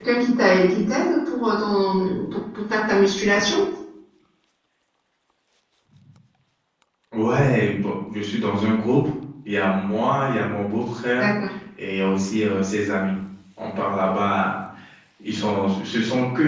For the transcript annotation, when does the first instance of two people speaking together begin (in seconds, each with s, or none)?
none